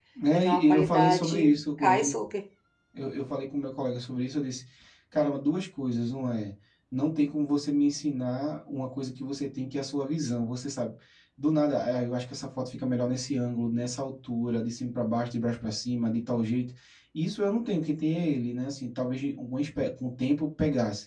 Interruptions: present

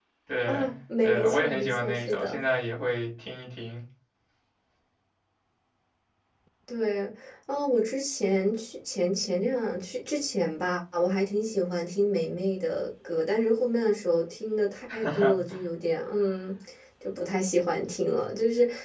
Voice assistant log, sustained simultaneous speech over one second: present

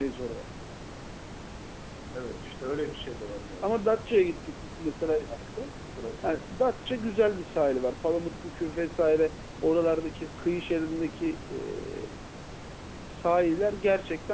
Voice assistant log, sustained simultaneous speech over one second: none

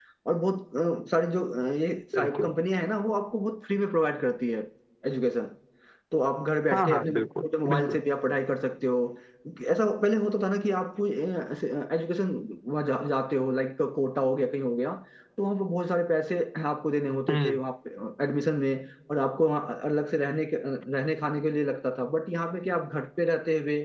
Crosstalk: present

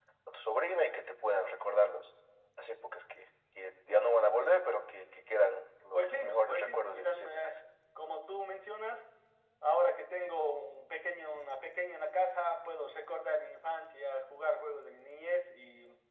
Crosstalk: present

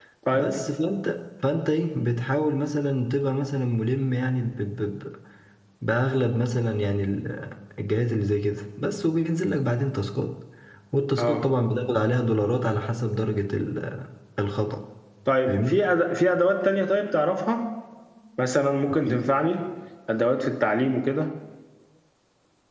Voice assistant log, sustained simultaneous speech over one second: none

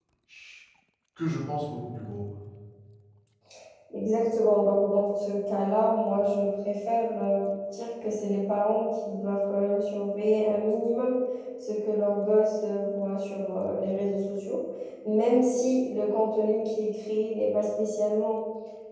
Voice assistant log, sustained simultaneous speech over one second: none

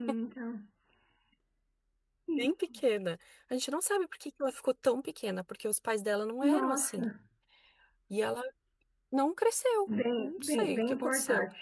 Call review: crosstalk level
present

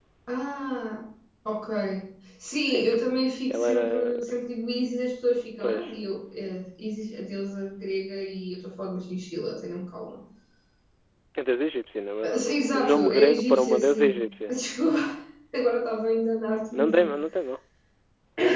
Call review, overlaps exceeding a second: present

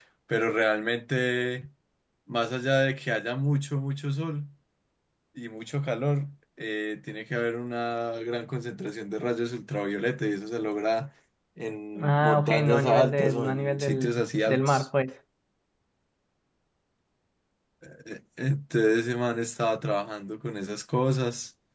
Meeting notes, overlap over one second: present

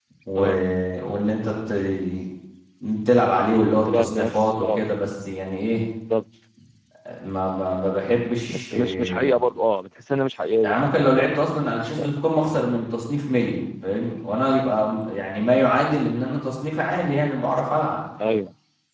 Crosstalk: present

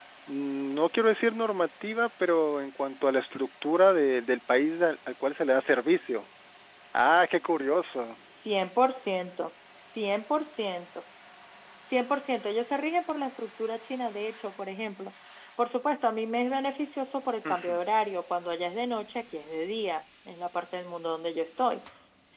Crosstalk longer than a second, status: none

